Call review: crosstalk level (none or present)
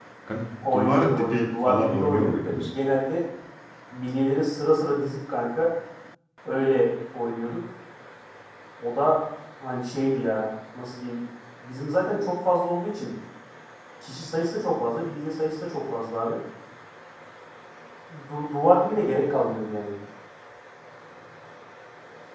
present